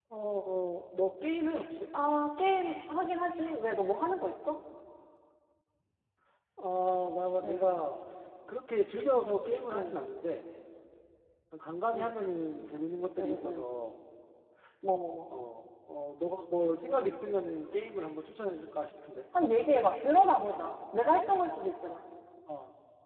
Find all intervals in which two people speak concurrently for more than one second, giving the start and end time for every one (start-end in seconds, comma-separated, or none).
none